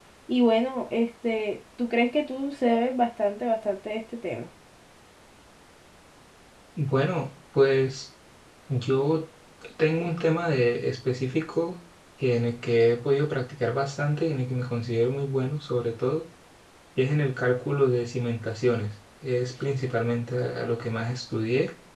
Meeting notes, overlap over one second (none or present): none